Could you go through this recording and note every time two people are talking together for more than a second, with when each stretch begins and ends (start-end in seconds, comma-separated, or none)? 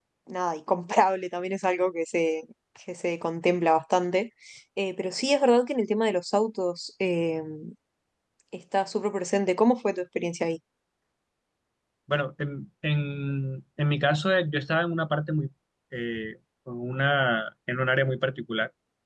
none